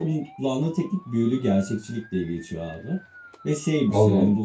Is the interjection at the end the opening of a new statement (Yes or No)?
No